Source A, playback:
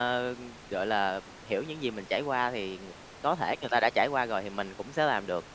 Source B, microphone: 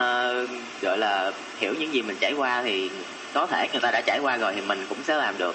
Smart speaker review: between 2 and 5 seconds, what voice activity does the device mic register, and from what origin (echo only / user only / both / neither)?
echo only